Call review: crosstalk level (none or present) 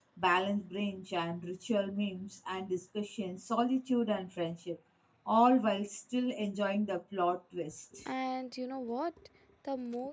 none